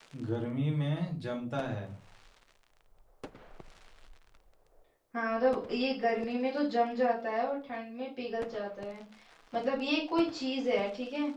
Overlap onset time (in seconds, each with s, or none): none